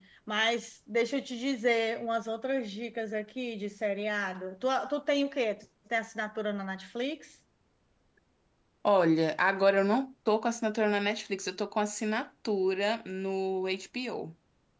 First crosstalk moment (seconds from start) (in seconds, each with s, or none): none